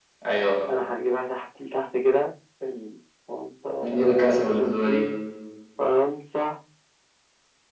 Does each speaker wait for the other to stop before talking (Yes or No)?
No